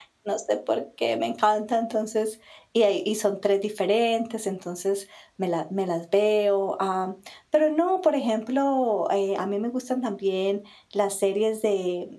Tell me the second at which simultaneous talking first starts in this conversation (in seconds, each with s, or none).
none